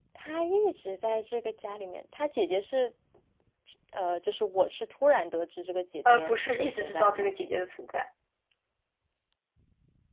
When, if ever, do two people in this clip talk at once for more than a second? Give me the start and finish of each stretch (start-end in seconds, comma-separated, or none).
6.0-7.4